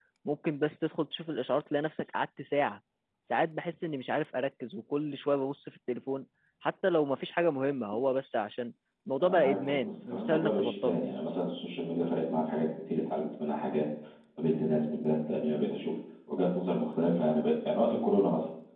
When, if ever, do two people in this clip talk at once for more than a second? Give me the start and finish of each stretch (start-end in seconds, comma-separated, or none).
9.2-11.0